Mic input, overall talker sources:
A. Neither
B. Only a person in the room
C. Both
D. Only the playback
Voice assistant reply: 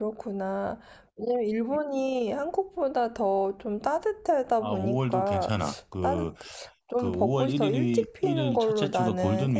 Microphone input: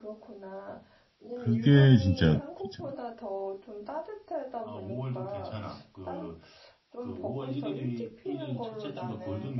C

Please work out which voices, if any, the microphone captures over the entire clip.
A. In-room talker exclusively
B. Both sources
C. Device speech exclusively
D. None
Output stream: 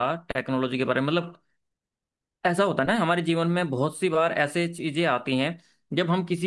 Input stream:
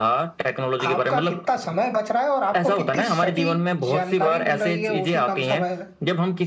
B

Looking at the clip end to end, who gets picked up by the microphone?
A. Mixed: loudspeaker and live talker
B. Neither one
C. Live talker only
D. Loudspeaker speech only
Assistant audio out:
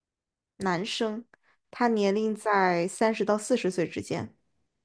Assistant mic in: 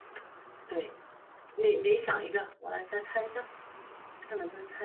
C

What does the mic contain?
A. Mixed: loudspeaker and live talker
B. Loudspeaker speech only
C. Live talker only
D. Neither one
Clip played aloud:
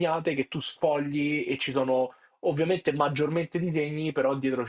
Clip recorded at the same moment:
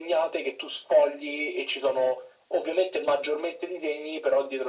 B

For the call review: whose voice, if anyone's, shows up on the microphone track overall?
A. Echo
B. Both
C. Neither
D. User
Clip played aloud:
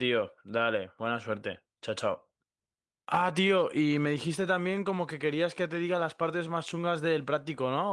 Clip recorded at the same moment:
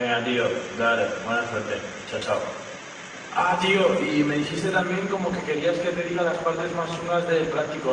A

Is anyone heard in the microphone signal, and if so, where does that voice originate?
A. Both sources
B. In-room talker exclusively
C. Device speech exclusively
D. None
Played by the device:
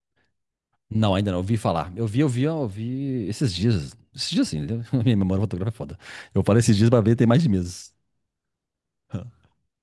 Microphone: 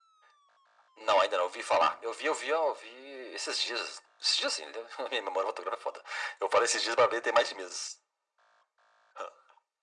C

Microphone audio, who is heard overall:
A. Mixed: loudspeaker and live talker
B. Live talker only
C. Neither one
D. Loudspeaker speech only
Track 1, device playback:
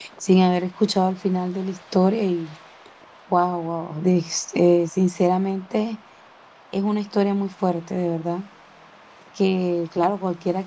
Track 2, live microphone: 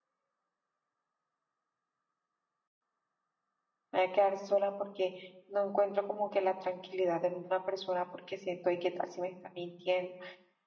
B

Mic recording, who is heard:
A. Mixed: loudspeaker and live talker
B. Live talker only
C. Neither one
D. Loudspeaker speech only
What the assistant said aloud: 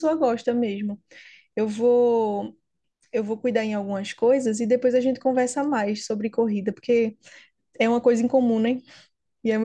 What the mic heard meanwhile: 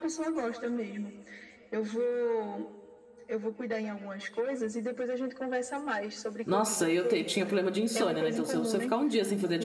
A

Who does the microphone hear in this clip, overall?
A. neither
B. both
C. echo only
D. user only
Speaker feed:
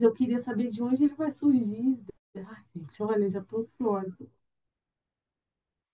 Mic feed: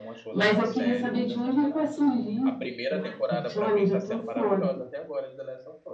B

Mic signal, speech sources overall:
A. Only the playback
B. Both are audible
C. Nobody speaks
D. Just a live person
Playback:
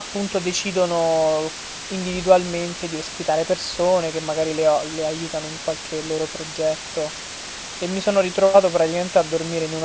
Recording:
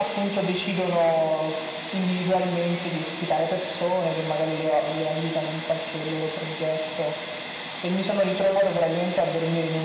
A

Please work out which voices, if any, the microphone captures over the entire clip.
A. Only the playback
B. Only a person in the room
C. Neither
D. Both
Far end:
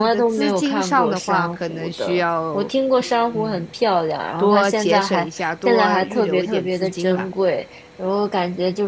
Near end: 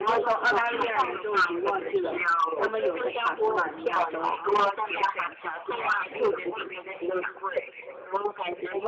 D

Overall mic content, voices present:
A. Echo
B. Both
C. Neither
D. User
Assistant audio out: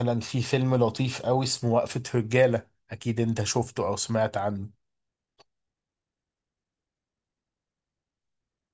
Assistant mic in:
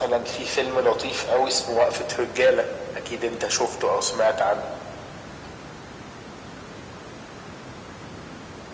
A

